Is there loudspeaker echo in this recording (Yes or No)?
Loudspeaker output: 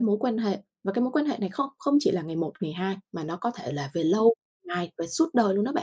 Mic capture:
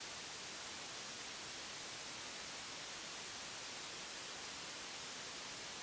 No